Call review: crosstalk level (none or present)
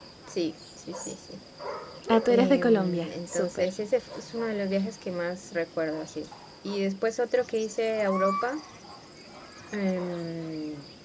present